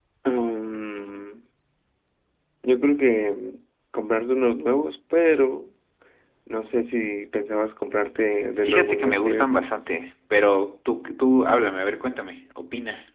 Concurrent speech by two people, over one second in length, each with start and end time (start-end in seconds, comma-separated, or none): 8.6-9.8